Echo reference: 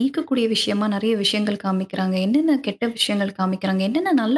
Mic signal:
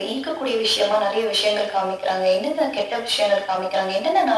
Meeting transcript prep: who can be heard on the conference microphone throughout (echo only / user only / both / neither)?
echo only